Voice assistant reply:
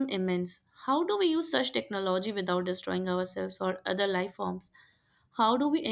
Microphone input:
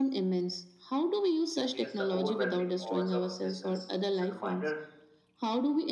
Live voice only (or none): against the overwhelming odds of existence. It's a reminder